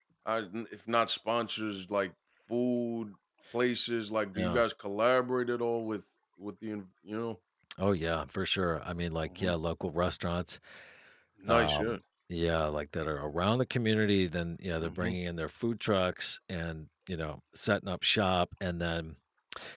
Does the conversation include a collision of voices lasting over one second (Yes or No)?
No